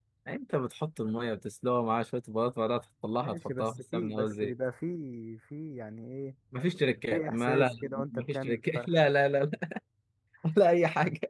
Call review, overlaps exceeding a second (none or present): present